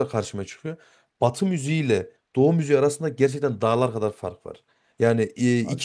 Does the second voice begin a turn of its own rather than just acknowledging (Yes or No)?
No